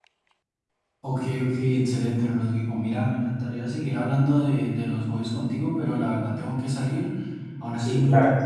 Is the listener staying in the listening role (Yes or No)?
Yes